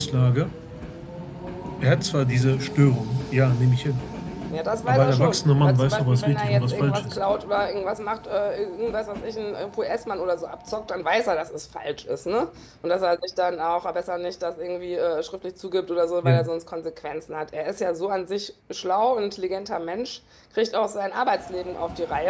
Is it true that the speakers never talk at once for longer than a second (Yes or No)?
No